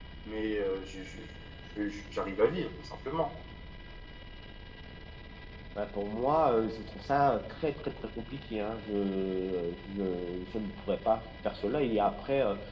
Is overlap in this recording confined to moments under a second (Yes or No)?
Yes